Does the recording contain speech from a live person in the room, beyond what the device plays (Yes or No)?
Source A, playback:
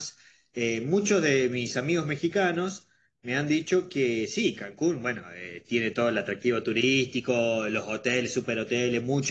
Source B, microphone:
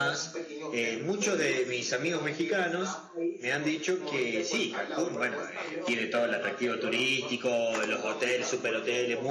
Yes